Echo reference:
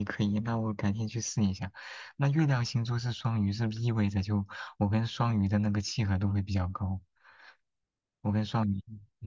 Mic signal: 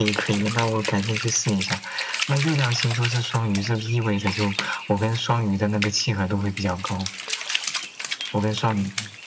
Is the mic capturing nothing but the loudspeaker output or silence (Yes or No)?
Yes